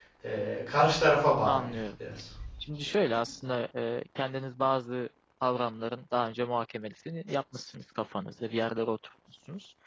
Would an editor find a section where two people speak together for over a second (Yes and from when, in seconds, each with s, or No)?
No